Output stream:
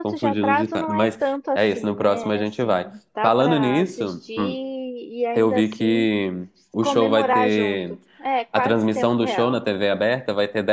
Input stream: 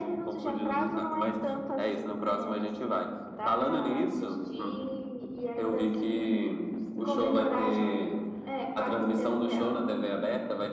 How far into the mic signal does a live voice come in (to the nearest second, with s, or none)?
none